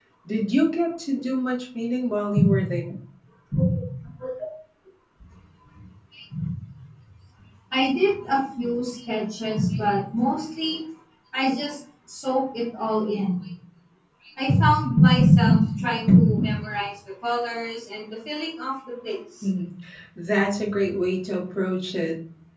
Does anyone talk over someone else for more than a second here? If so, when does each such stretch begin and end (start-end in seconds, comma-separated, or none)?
none